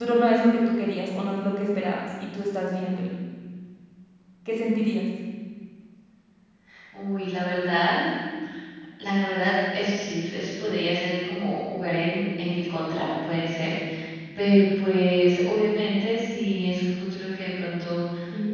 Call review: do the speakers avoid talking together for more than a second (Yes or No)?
Yes